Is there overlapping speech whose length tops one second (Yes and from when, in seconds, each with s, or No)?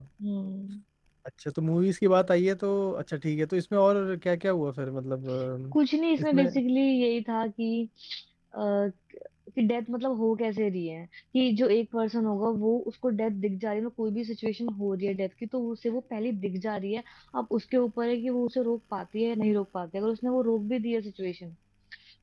No